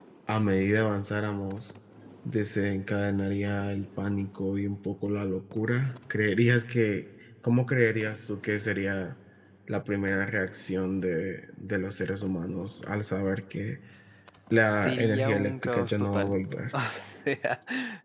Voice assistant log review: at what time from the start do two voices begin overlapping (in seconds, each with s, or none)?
14.8 s